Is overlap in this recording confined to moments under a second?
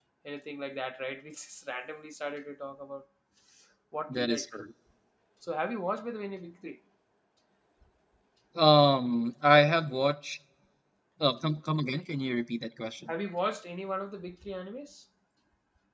Yes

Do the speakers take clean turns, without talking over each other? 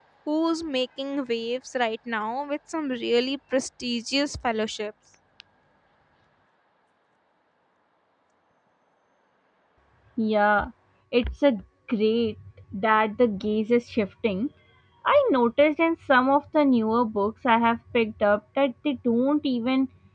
Yes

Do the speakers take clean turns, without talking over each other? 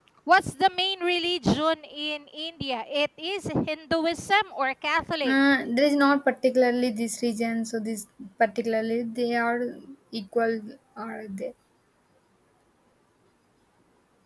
Yes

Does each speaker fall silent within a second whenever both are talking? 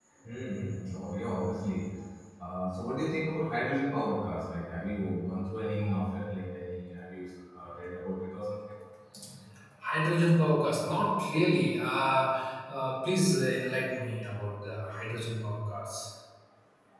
Yes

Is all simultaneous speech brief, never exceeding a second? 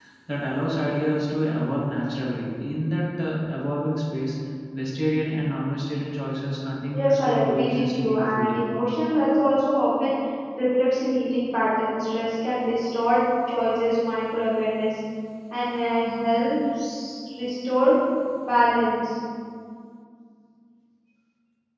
No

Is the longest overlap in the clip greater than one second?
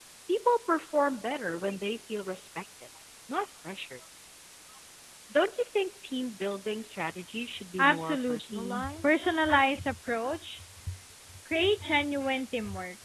Yes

